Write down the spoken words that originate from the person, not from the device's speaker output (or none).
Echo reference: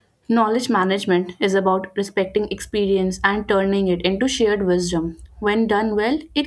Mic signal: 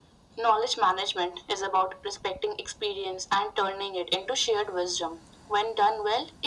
none